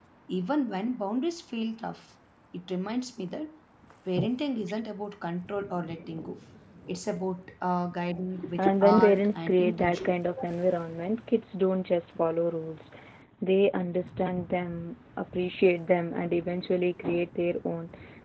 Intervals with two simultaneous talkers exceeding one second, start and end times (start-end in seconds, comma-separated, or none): 8.6-10.1